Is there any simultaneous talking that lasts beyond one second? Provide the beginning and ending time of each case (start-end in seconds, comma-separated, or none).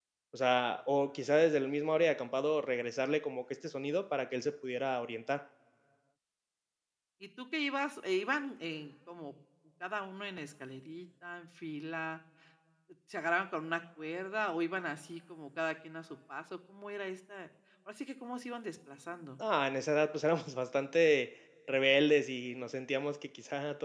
none